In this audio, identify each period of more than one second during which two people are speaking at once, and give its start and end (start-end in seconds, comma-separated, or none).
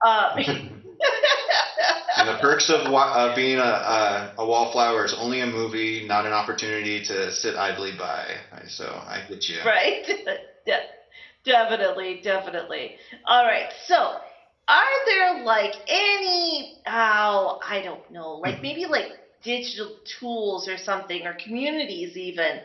none